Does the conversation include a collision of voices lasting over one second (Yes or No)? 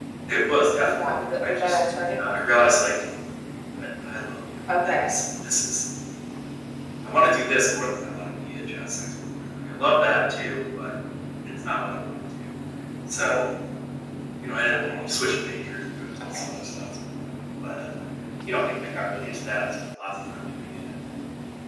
Yes